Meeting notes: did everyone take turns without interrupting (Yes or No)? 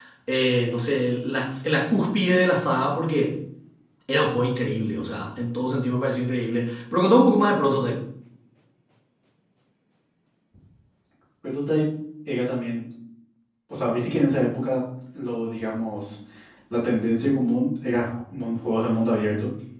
Yes